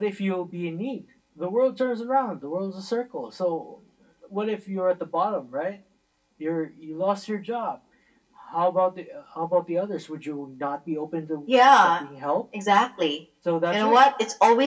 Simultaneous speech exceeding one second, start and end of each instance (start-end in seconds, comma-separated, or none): none